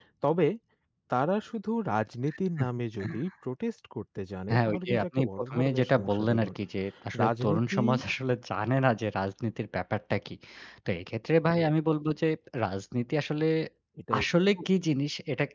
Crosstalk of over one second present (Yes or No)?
Yes